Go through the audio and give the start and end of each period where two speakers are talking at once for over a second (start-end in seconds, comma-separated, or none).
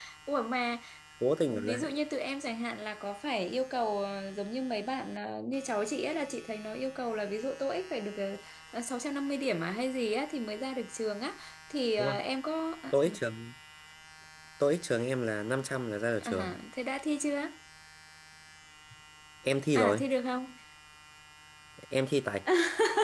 none